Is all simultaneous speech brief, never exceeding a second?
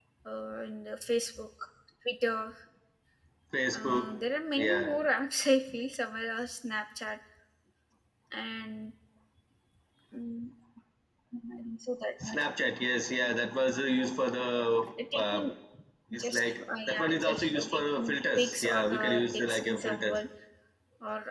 No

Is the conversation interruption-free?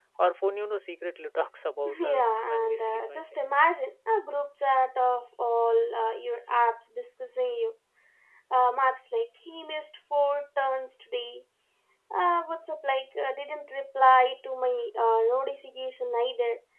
No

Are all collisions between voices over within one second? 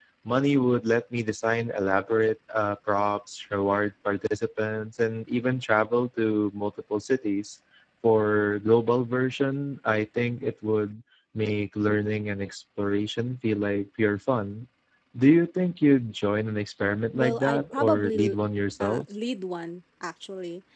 No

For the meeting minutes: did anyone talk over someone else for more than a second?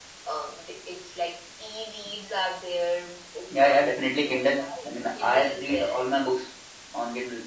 Yes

